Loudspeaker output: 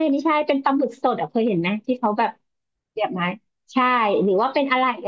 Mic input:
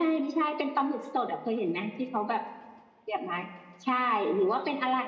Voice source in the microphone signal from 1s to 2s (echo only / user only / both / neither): echo only